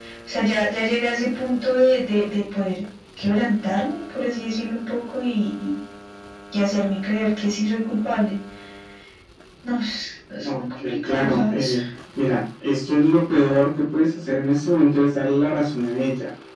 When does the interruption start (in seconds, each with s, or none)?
10.4 s